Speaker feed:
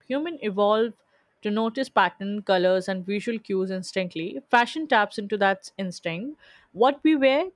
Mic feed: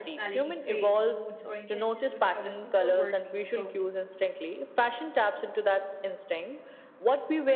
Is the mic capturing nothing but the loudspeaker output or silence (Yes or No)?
No